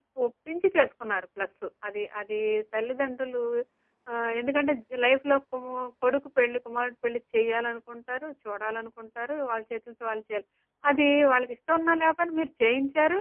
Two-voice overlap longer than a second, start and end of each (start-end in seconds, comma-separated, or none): none